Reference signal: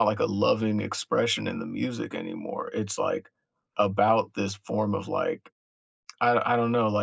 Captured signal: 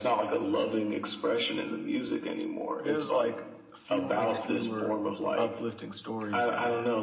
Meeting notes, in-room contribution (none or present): present